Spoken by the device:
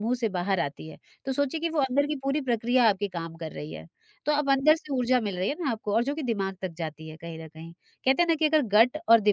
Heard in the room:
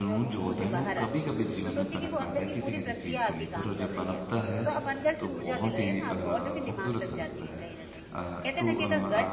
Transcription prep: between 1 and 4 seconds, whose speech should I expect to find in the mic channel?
both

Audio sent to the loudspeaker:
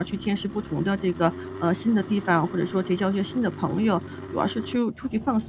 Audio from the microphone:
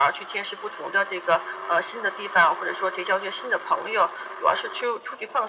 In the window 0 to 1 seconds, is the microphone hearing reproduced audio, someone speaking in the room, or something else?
echo only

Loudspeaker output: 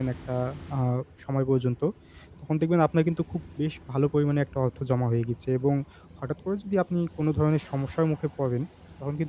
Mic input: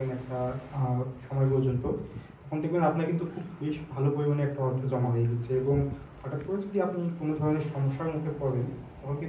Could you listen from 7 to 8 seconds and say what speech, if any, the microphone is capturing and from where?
echo only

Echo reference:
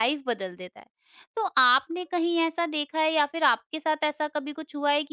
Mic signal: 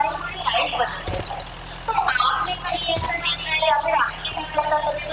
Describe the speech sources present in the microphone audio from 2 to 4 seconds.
echo only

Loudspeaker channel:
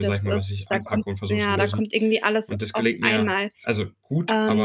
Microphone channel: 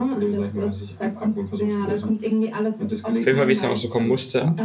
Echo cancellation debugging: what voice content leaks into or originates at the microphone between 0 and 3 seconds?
echo only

